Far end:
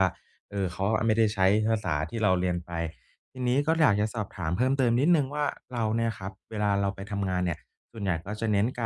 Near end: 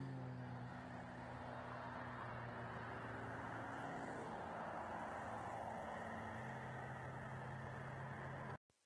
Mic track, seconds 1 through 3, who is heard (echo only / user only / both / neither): neither